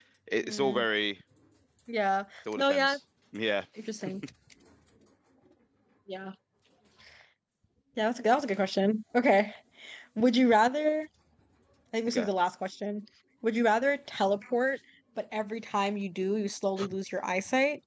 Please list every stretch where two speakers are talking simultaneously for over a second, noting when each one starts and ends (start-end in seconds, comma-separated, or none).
none